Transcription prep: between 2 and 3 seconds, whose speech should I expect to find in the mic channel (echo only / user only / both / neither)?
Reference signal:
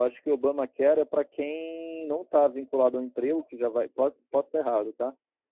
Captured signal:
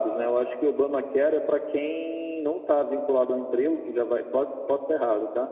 echo only